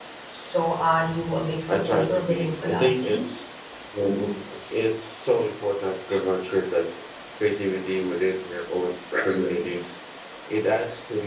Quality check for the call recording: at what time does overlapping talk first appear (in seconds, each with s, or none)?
1.7 s